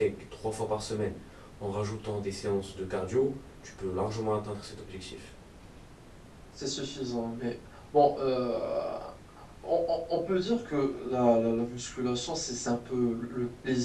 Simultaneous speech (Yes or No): No